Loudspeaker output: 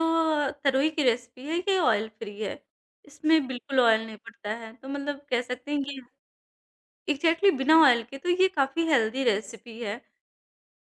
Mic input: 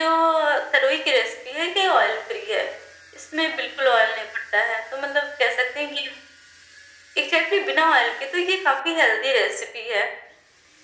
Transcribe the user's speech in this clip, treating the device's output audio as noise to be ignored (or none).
none